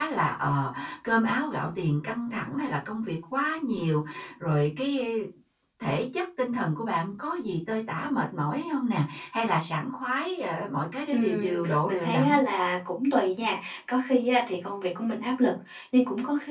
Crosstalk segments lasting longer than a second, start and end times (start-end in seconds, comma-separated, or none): 11.1-12.4